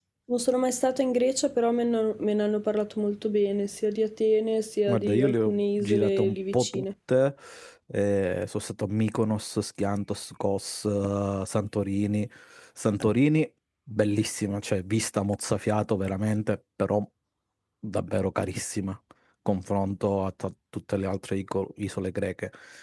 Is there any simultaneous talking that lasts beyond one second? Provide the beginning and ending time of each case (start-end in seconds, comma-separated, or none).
4.9-6.8